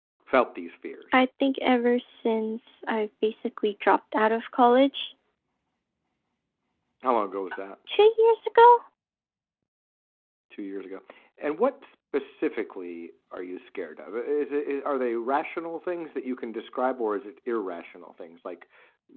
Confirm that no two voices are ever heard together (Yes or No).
Yes